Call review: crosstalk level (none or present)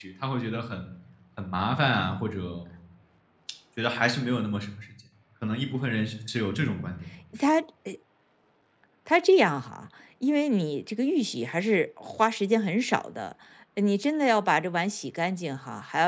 none